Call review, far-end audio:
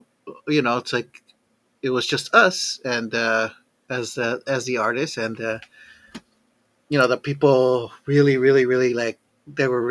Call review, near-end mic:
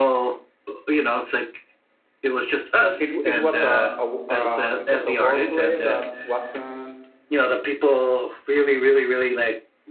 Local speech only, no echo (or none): it it, it was a, a uh, it was a wordplay that wasn't